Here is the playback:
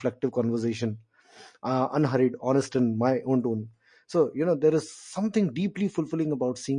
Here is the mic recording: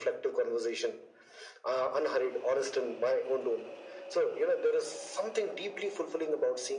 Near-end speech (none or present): none